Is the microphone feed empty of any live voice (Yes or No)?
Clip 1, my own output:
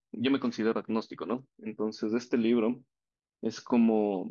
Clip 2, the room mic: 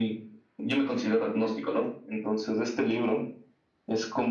Yes